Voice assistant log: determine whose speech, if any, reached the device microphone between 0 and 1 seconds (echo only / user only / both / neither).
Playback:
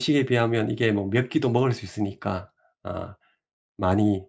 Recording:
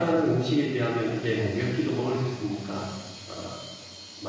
echo only